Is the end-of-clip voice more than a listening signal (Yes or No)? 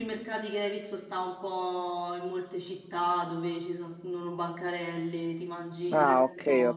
Yes